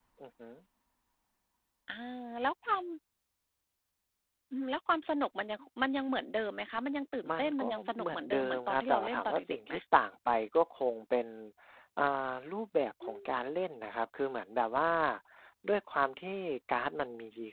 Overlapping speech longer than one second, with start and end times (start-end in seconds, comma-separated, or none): 7.4-9.7